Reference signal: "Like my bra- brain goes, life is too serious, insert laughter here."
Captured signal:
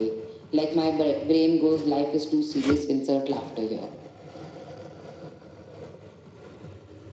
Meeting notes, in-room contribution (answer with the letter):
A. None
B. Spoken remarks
A